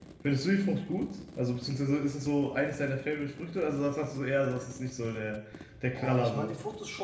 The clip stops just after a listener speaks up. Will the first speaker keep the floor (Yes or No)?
No